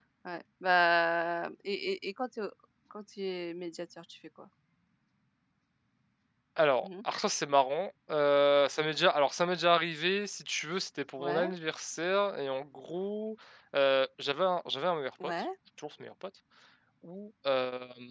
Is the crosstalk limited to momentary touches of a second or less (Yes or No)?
Yes